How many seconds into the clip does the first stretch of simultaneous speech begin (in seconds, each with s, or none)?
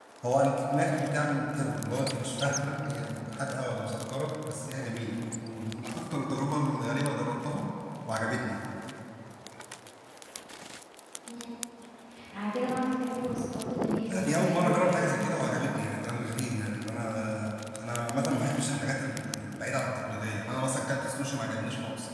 14.1 s